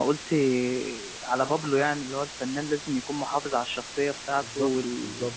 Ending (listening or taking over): listening